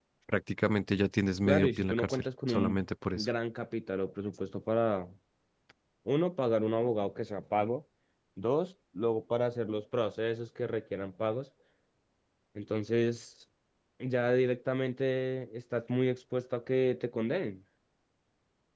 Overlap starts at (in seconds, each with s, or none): 1.5 s